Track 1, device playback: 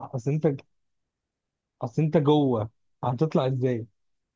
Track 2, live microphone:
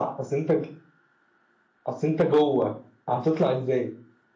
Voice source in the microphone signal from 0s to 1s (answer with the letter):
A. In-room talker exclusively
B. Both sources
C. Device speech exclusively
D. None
C